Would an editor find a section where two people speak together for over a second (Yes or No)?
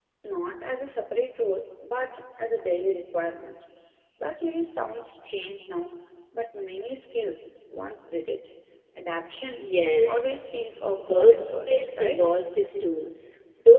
Yes